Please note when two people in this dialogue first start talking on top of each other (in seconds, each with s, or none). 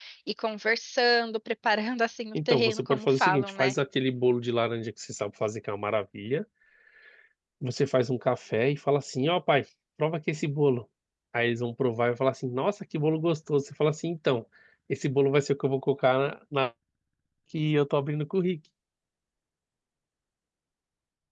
2.3 s